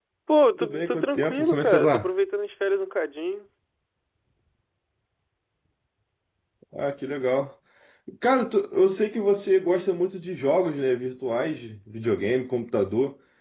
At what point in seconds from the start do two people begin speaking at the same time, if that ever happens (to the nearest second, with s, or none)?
1 s